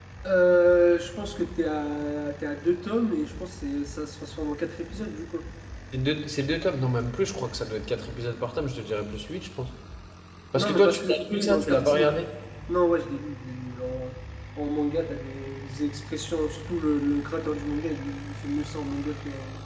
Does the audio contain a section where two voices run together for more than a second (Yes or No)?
Yes